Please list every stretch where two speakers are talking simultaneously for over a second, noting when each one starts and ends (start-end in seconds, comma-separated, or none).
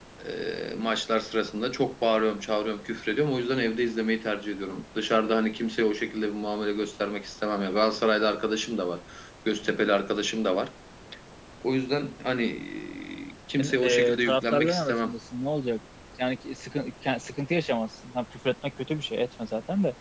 13.6-15.1